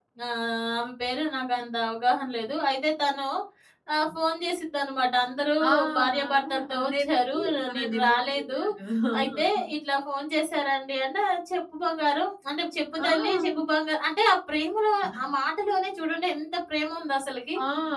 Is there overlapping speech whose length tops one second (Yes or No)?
Yes